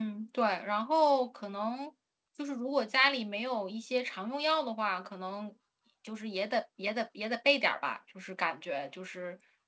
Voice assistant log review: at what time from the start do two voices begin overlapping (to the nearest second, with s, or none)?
none